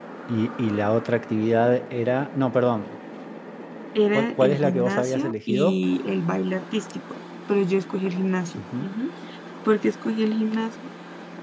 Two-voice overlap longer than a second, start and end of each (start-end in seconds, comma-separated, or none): 4.1-5.8